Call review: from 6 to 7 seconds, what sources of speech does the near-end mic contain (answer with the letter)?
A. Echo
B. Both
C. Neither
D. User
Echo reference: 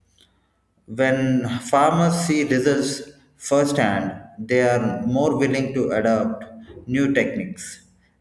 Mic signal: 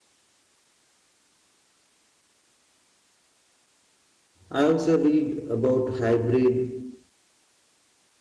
D